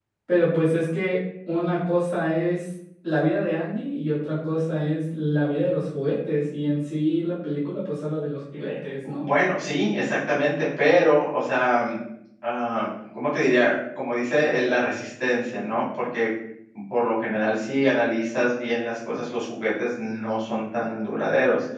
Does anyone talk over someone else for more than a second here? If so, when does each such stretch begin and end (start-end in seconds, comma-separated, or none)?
none